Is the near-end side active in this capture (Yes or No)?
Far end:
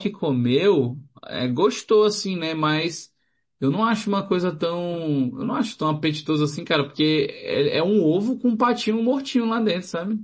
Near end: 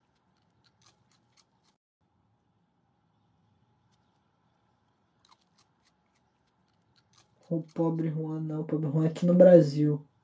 Yes